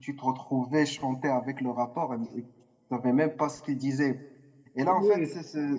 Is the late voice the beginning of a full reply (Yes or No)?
No